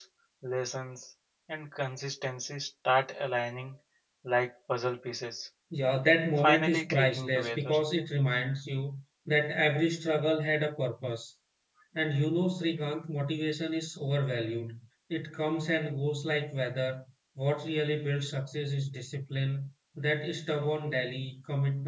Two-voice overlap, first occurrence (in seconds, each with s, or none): 6.4 s